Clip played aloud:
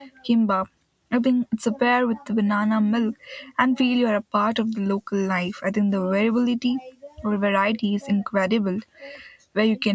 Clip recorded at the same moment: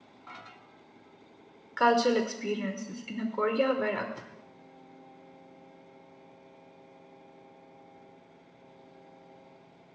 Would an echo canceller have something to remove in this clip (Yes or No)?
No